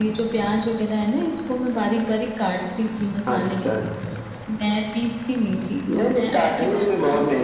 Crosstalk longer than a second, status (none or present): present